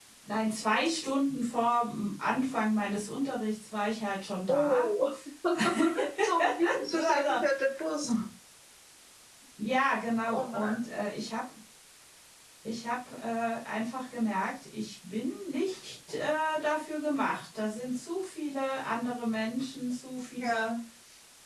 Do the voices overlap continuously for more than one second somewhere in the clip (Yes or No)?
No